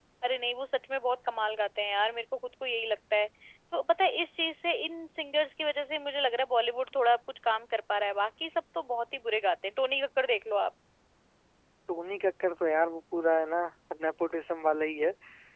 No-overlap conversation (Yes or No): Yes